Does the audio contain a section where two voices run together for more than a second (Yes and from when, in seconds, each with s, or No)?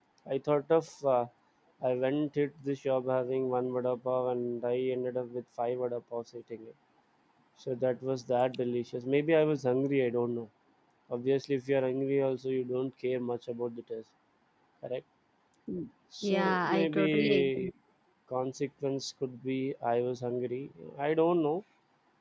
Yes, from 16.2 s